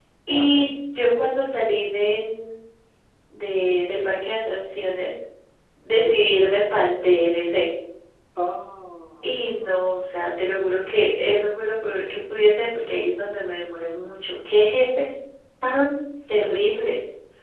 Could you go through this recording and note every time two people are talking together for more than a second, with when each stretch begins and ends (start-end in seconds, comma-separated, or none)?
none